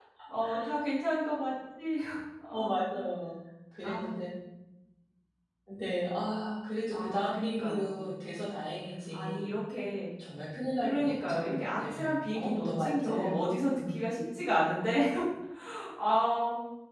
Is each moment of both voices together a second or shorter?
No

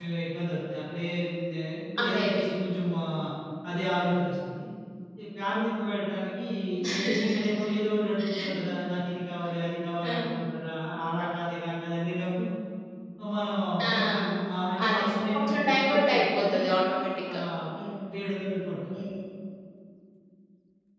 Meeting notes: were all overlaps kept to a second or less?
No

